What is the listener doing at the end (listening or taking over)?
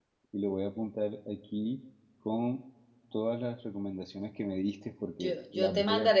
taking over